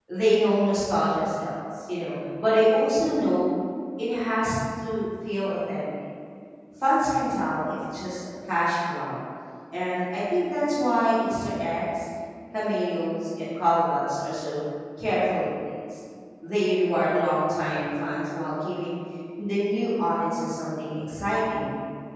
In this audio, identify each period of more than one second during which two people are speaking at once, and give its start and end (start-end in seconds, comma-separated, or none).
none